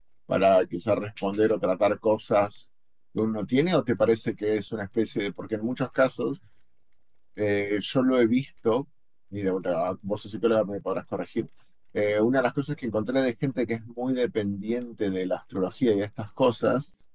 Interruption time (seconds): none

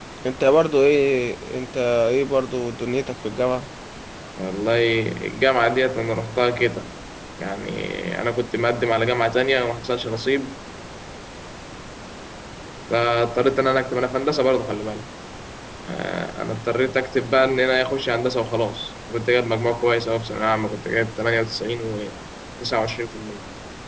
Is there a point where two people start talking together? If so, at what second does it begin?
none

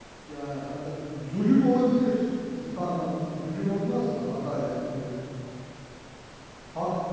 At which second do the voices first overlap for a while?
none

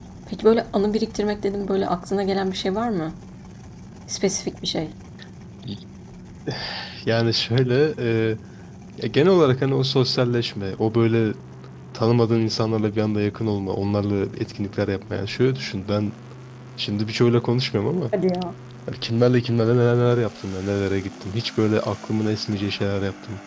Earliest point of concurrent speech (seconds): none

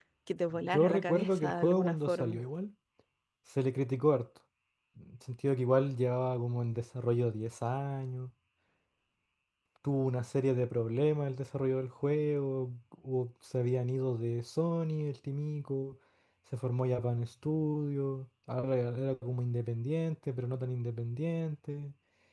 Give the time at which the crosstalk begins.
0.7 s

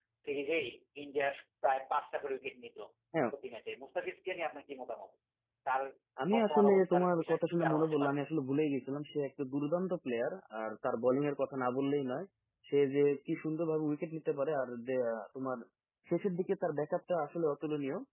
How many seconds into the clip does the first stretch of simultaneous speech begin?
6.3 s

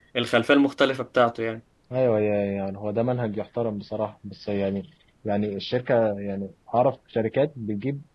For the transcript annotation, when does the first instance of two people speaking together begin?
none

